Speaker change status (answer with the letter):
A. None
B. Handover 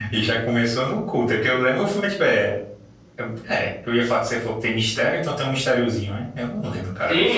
B